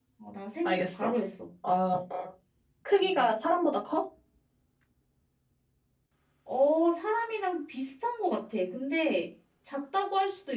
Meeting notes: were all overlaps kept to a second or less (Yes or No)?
Yes